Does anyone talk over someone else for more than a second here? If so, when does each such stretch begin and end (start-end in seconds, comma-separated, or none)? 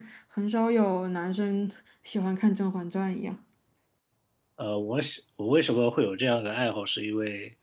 none